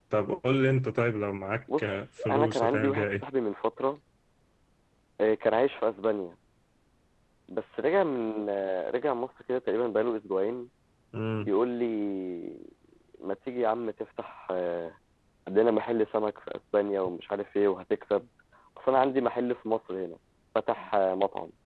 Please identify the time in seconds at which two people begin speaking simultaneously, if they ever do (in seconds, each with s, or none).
1.7 s